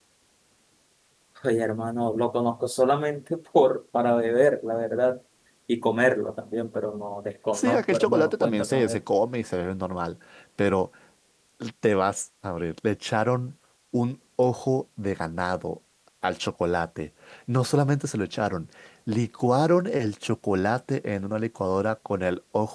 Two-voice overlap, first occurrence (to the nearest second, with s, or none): 8 s